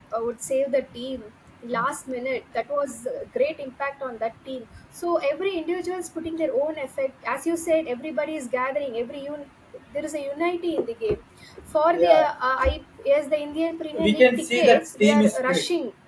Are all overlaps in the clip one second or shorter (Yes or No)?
No